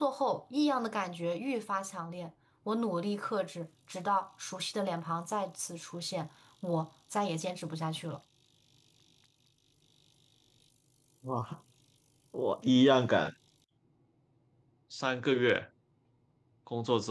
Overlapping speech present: No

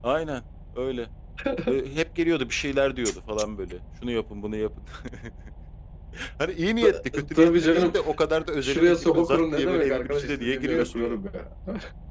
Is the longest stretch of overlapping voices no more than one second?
No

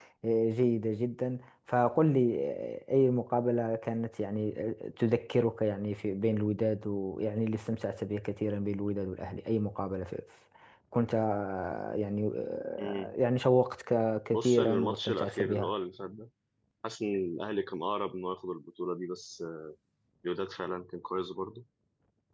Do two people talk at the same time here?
Yes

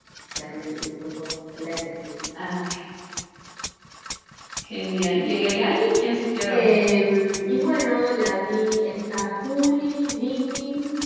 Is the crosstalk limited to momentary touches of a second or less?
Yes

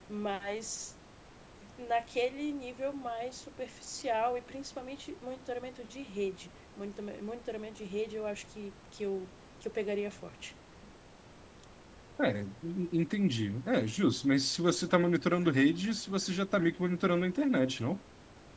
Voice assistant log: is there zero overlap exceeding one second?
Yes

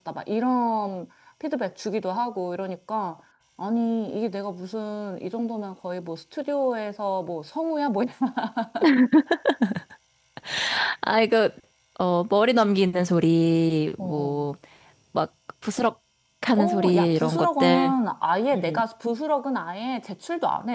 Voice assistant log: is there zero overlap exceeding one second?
No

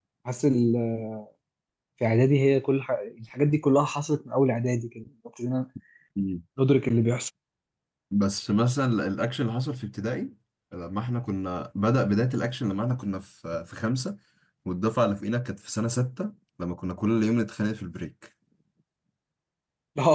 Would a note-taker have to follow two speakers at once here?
No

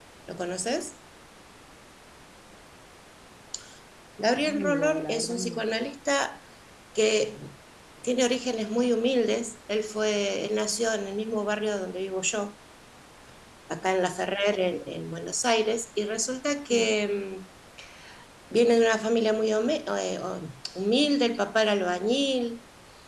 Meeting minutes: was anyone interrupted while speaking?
Yes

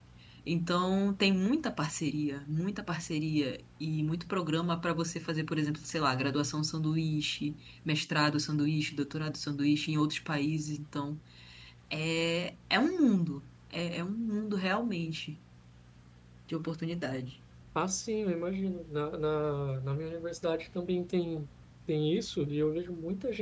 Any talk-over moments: No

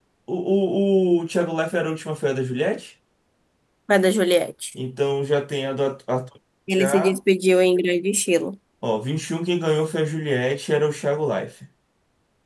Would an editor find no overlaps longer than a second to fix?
Yes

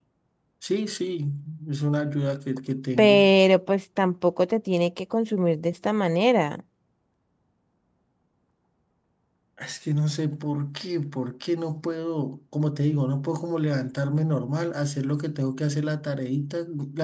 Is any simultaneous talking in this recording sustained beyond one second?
No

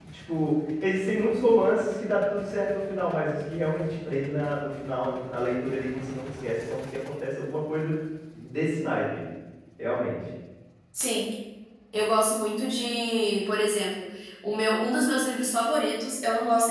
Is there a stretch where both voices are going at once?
No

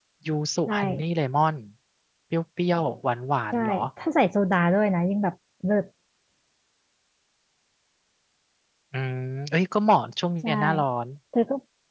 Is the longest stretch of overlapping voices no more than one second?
Yes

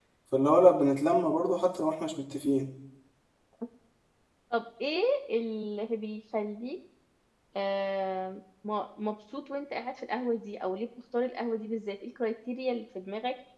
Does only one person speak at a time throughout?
Yes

